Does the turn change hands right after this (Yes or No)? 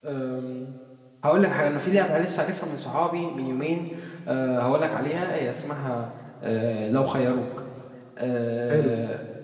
No